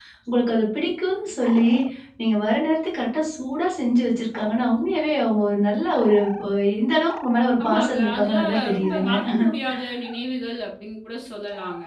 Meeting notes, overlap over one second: present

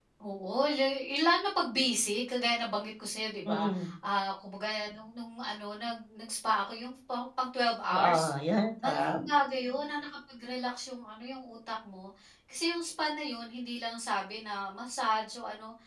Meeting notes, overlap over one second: none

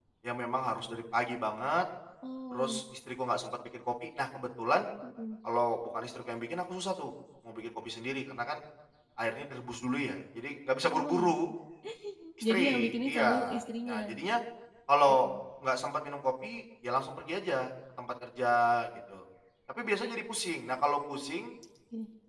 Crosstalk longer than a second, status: present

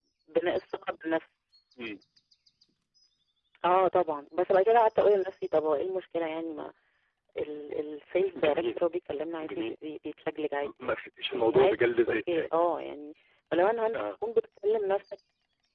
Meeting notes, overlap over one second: present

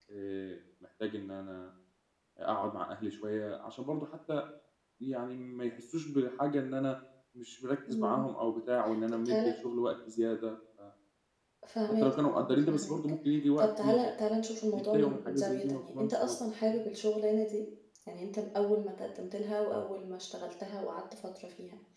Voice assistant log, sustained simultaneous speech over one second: present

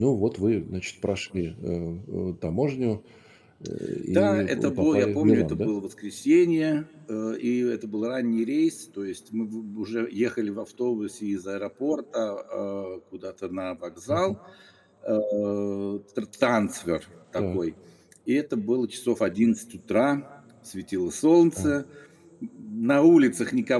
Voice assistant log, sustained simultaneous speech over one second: present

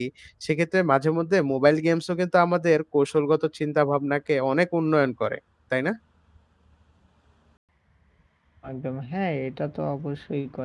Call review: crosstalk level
none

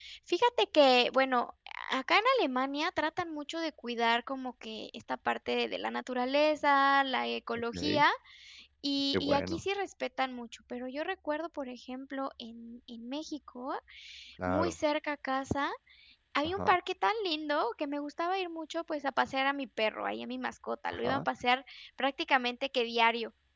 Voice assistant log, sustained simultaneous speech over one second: none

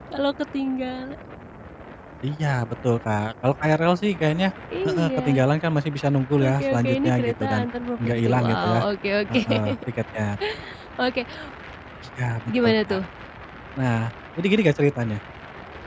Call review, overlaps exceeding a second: present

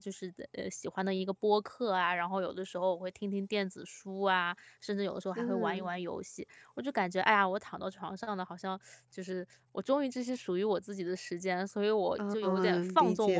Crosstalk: present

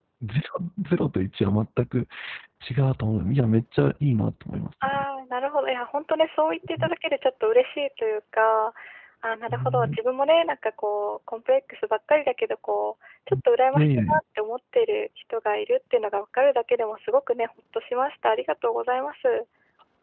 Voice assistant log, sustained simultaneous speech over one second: none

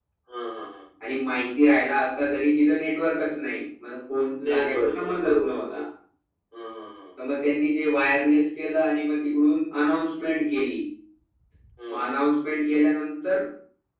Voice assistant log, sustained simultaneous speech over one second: present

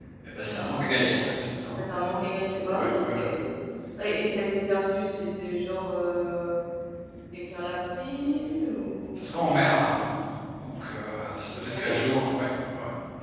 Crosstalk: present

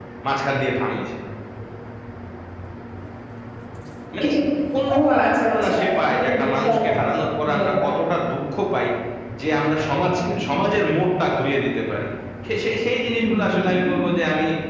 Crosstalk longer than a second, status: present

